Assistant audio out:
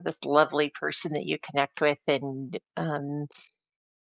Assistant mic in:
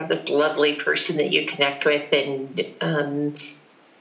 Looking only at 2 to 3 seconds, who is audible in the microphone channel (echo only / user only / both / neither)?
echo only